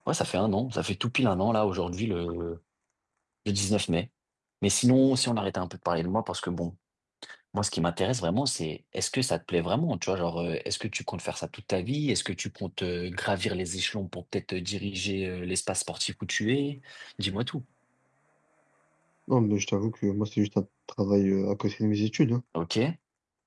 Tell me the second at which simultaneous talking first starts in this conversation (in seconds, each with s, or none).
none